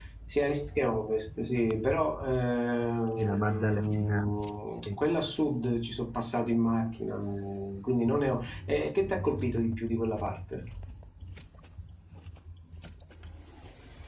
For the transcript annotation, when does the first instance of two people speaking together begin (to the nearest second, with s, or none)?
3 s